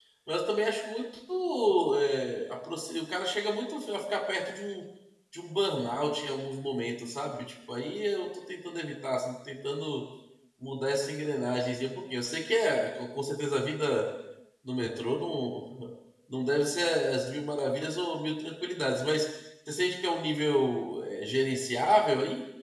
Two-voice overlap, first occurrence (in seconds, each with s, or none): none